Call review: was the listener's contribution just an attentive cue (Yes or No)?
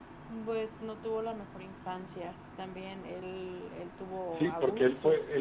No